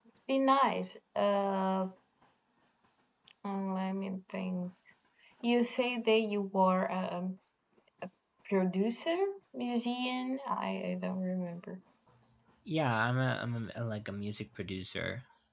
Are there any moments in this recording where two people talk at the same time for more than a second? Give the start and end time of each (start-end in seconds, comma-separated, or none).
none